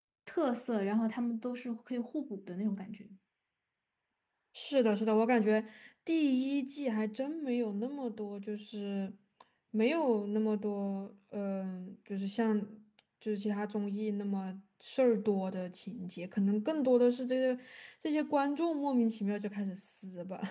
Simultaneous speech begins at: none

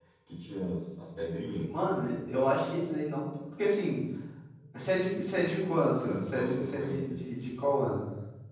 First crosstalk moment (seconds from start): 6.0 s

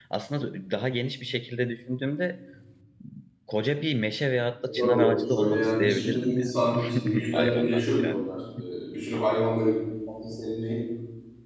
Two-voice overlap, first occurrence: 4.7 s

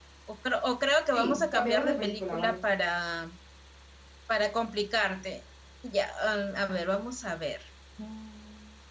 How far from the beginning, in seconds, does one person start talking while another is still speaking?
1.1 s

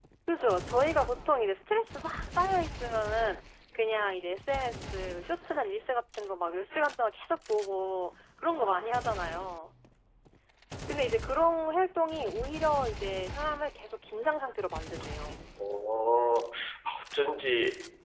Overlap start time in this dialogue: none

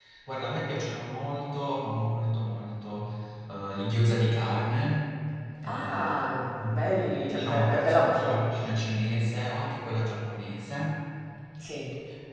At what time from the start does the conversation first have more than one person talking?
5.6 s

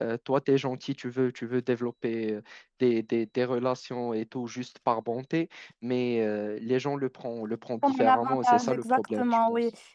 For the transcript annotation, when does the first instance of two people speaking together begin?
7.8 s

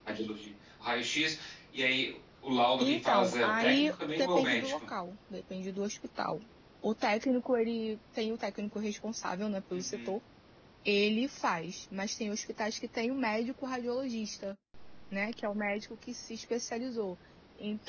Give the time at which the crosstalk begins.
2.8 s

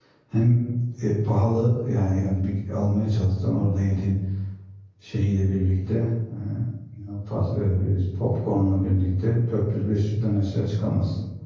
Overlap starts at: none

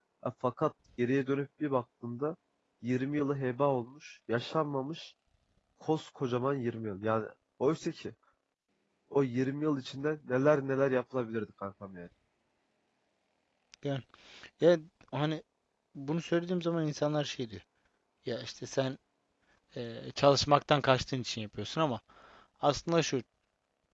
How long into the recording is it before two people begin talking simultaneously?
none

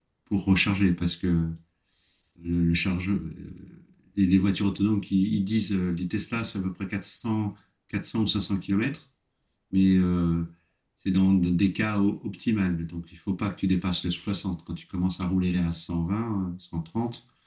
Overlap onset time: none

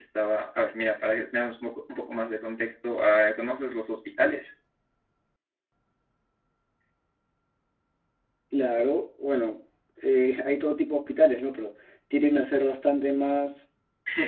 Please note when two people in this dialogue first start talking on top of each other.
none

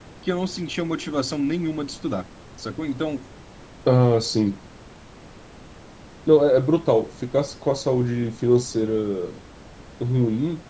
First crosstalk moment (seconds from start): none

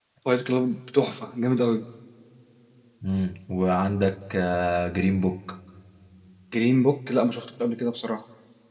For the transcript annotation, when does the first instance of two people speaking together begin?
none

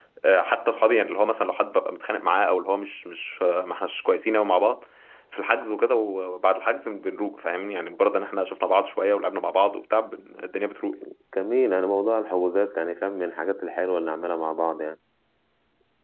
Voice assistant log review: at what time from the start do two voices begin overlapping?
none

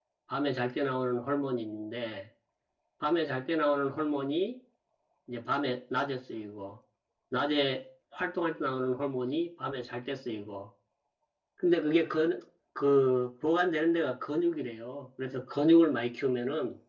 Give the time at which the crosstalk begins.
none

